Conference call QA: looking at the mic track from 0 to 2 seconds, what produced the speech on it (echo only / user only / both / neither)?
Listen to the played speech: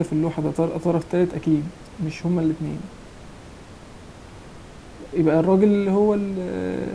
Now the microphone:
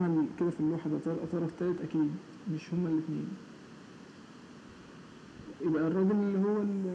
echo only